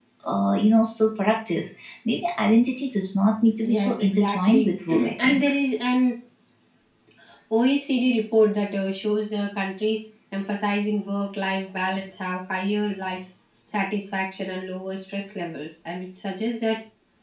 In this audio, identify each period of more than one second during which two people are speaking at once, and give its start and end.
3.6-5.5

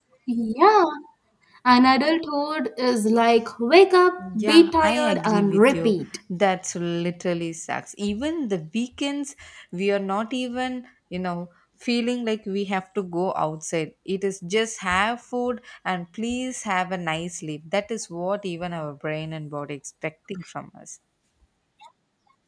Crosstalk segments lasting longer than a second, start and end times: 4.2-6.0

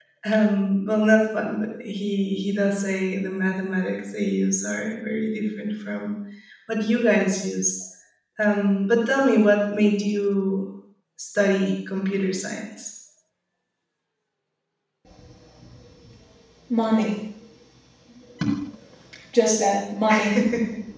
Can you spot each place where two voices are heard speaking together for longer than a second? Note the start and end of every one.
none

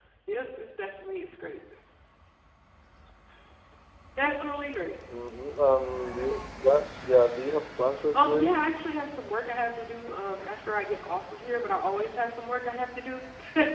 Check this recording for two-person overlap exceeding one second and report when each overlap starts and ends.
none

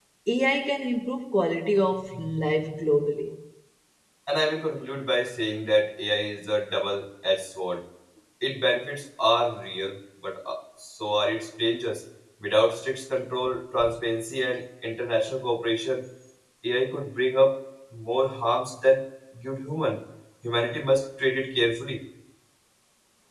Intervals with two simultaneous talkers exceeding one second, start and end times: none

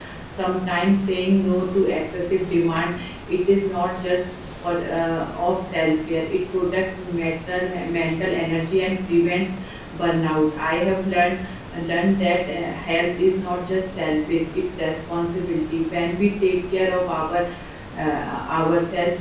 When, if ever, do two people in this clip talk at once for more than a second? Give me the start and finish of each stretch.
none

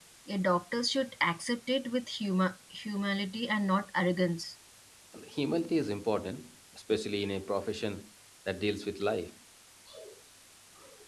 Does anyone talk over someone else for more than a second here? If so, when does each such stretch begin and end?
none

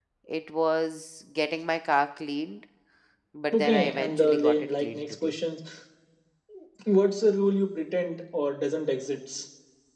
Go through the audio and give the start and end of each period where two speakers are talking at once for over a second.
3.5-5.3

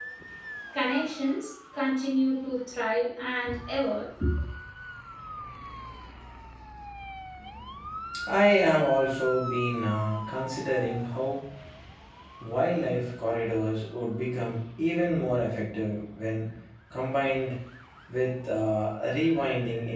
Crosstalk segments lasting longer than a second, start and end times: none

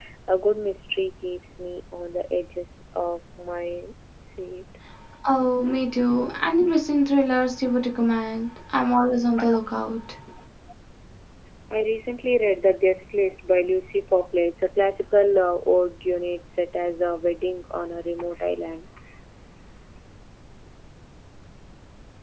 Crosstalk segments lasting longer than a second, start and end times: none

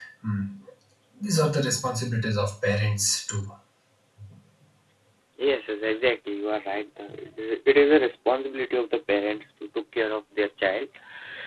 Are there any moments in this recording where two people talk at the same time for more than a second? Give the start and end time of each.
none

